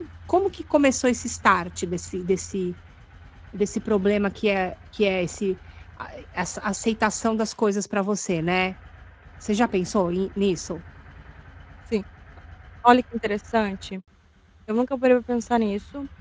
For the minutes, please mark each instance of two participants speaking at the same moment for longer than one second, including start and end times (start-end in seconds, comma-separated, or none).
none